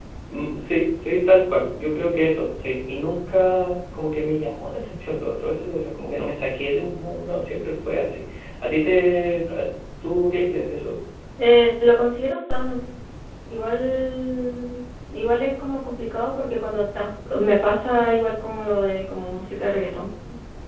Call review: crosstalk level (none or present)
none